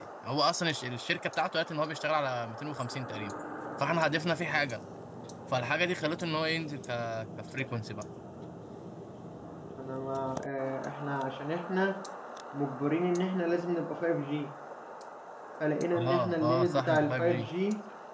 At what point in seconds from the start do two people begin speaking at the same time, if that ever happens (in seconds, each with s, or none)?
16.1 s